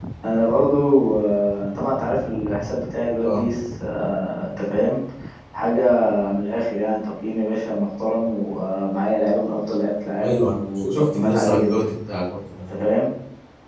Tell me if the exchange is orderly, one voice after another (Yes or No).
No